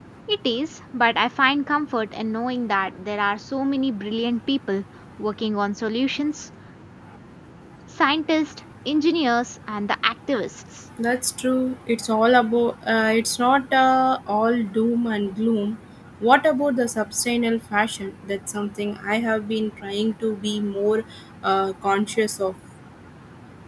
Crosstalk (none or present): none